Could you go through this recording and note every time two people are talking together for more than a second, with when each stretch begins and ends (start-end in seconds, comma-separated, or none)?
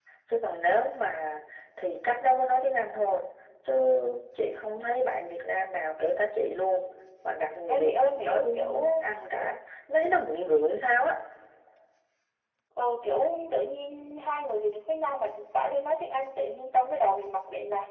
7.7-9.0